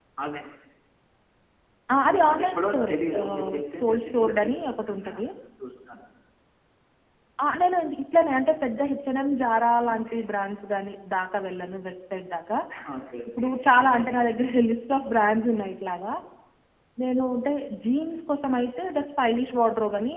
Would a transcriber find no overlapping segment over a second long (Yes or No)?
No